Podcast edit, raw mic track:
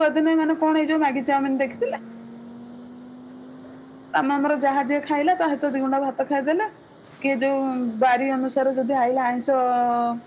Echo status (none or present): present